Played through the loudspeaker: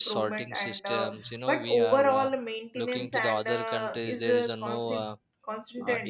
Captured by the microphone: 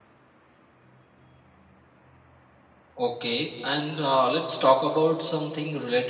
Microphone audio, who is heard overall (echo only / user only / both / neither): user only